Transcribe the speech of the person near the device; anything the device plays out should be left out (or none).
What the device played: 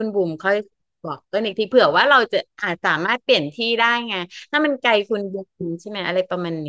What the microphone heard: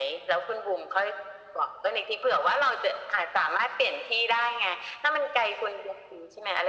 none